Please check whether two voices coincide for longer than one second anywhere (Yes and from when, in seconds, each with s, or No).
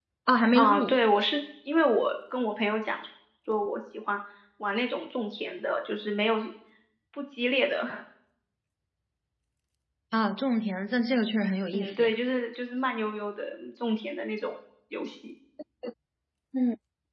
No